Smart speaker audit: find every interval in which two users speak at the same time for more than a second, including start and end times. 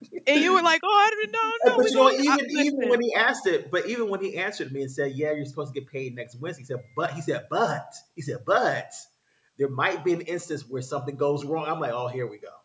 1.4-2.9

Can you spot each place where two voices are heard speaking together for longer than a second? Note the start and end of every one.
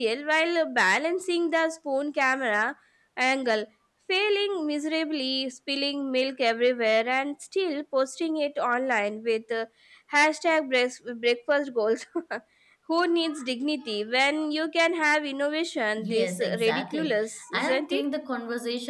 16.0-18.0

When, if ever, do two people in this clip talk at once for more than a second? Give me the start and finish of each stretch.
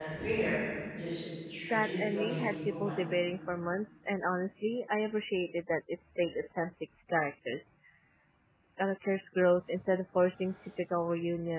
1.7-3.0

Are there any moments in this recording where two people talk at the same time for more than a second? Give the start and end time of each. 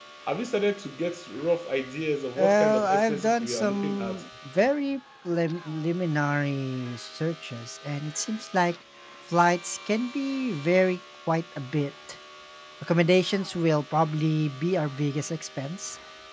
2.4-4.2

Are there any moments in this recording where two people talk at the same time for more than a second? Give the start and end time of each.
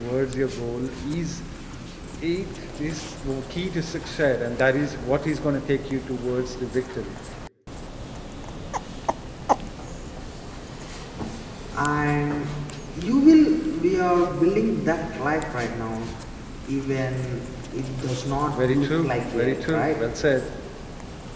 18.5-20.0

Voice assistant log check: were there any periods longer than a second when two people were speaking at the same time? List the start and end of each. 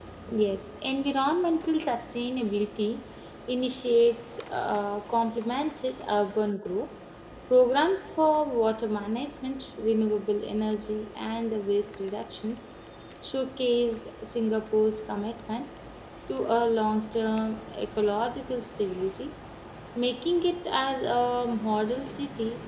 none

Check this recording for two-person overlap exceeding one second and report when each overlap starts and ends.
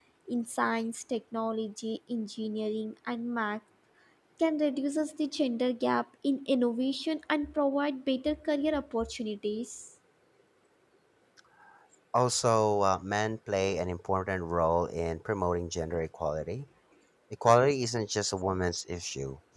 none

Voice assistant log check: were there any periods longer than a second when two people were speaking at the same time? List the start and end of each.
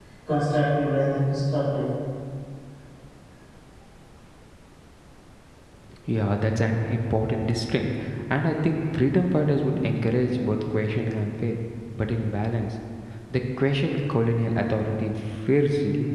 none

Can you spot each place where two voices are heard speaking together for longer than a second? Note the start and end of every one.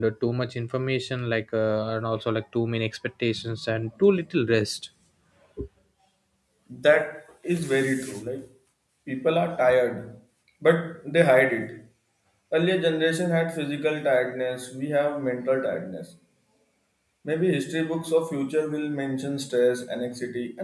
none

